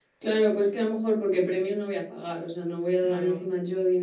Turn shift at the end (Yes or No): No